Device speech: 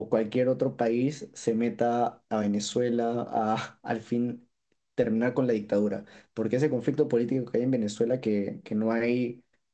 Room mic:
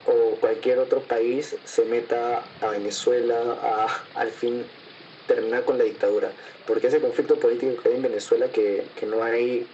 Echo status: present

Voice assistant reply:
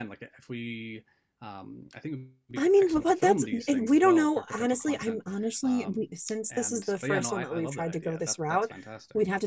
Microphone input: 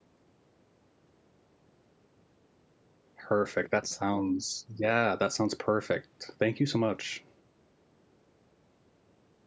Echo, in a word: none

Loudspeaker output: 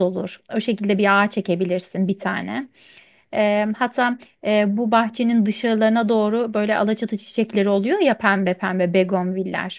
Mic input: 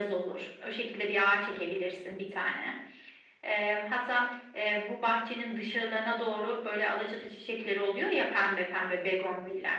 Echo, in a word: present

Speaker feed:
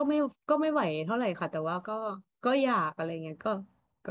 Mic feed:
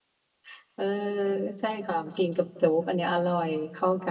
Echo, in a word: none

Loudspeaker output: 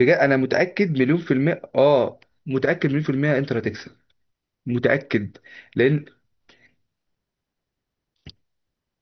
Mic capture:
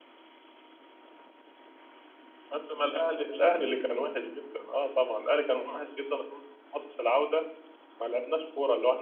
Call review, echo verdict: none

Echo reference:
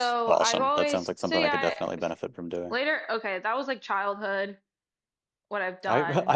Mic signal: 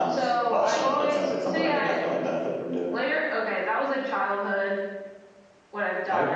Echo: present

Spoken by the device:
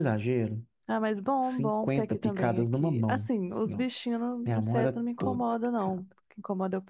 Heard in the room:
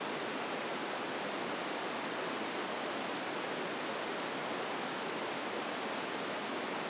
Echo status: none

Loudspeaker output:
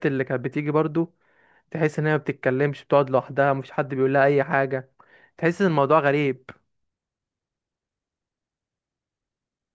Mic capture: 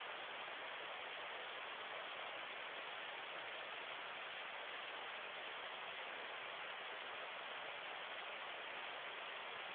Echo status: none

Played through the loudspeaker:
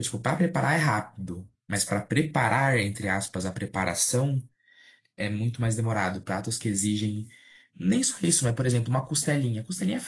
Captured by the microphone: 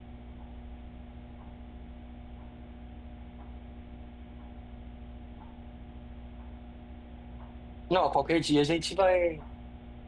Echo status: none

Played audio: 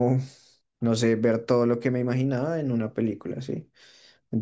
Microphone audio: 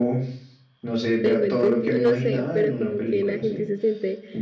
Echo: present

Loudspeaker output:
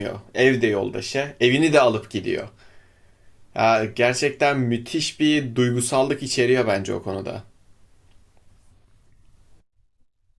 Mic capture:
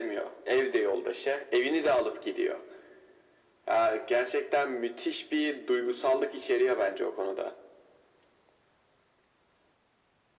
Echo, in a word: present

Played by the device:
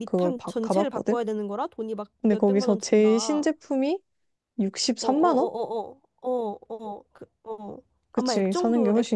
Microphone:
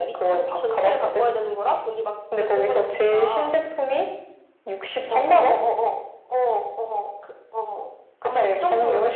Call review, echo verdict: present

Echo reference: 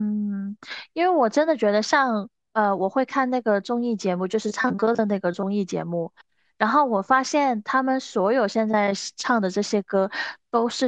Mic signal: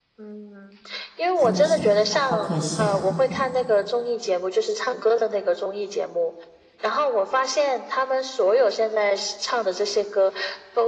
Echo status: present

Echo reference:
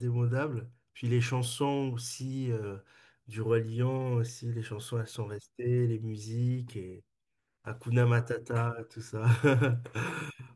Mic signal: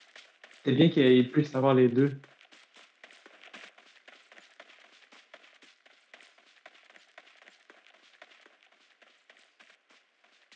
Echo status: none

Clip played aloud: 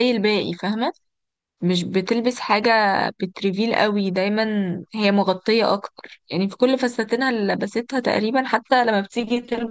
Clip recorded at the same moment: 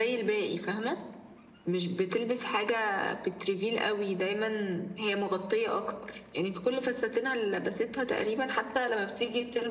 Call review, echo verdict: present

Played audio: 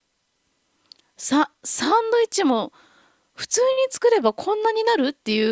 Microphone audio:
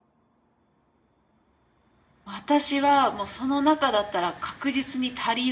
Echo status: none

